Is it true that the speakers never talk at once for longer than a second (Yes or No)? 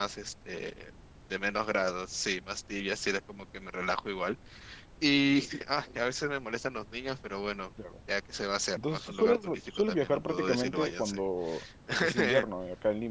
No